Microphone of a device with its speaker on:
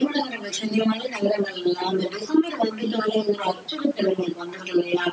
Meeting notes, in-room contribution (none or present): none